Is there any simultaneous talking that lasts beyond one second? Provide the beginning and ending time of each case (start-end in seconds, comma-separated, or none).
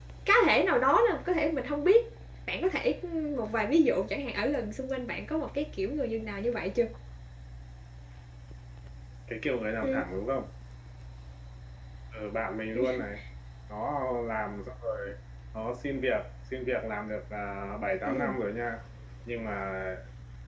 none